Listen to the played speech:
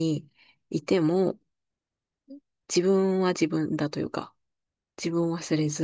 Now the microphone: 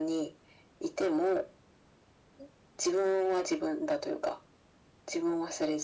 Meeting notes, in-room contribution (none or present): none